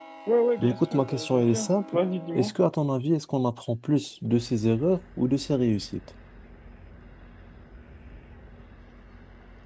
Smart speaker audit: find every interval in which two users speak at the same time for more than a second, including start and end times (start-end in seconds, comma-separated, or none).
0.6-2.0